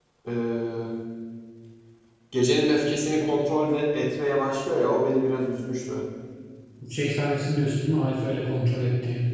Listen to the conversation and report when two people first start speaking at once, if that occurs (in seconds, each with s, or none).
none